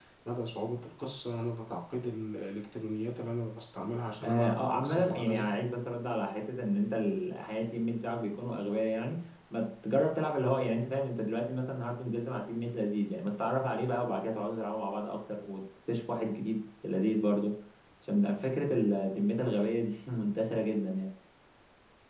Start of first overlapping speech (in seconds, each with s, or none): 4.2 s